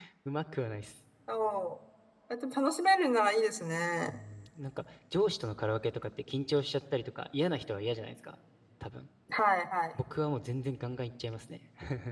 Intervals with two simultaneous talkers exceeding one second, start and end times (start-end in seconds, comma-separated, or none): none